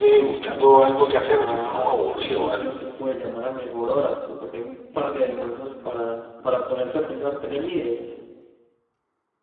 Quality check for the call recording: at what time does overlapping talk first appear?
1.2 s

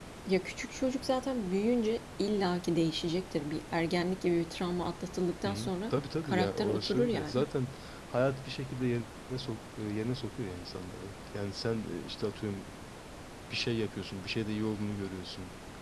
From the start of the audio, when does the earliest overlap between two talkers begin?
5.5 s

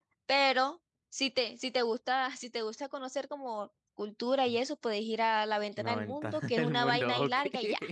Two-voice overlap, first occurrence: 5.8 s

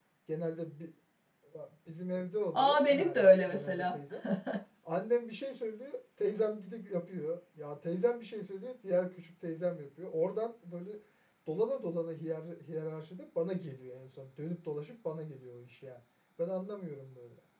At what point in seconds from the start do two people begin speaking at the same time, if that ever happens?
2.5 s

